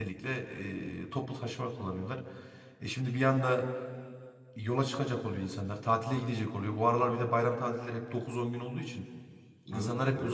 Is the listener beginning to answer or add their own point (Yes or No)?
No